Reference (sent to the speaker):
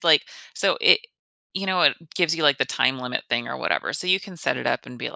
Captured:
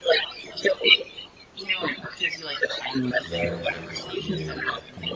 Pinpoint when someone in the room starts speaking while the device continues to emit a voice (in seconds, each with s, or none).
3.0 s